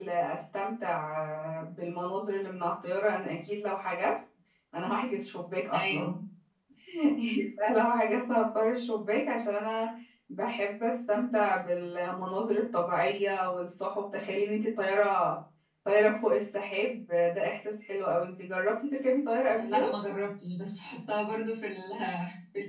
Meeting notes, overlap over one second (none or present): none